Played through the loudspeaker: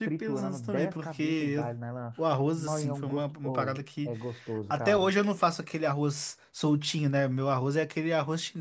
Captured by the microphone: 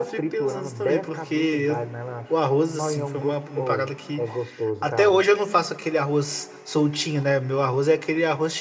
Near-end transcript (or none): none